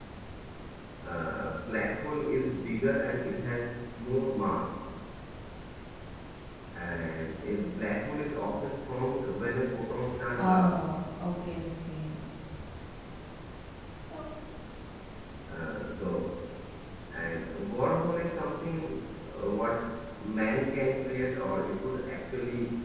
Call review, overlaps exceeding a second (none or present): none